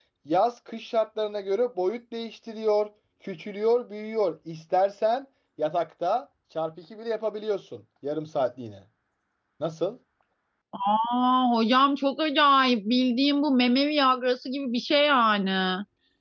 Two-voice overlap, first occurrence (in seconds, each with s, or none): none